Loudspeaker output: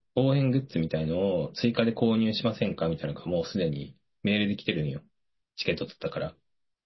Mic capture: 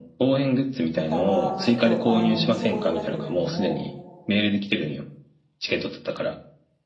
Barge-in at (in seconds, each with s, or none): 0.9 s